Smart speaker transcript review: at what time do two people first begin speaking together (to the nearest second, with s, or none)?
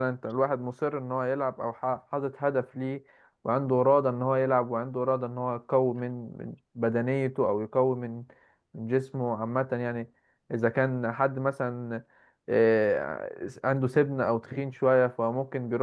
none